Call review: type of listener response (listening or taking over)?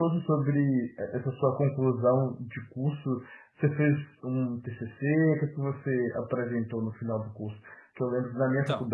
listening